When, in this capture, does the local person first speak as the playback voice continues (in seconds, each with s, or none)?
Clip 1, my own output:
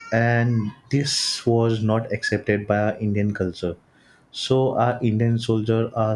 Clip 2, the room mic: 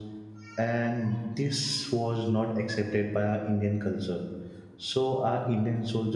none